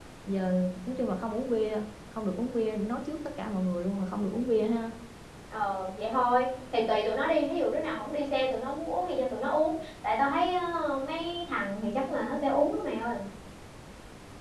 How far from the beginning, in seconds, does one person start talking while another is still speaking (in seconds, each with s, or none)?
none